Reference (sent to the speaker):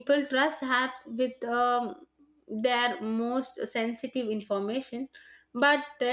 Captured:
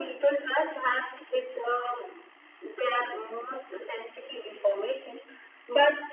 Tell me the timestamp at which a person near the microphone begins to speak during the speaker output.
none

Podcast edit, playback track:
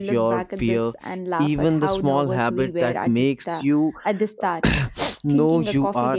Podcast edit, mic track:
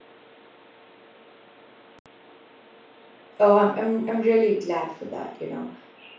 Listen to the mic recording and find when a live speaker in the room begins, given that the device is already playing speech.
3.4 s

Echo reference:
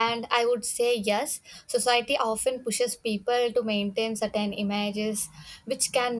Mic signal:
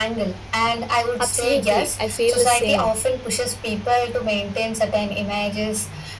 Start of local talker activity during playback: 1.2 s

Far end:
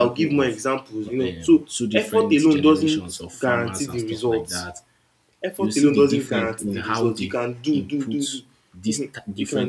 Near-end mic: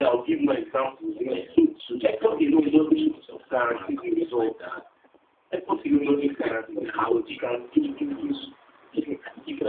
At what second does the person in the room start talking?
none

